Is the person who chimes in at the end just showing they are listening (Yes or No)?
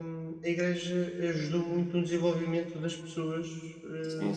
No